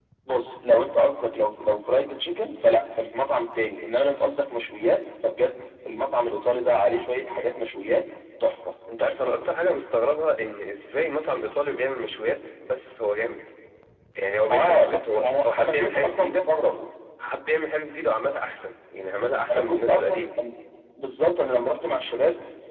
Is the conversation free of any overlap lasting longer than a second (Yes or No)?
No